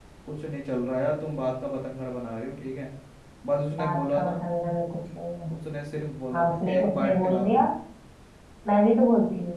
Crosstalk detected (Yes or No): Yes